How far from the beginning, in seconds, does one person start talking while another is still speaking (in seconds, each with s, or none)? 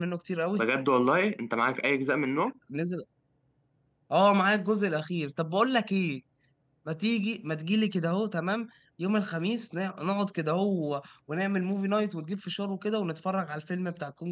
none